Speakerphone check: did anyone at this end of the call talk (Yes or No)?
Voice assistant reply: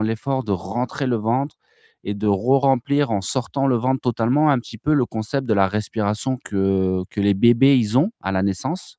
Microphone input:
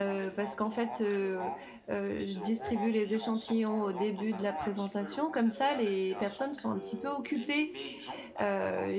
Yes